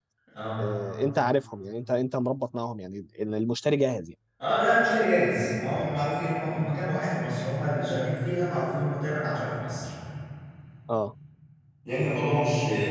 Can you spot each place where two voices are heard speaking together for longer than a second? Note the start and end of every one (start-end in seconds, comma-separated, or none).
none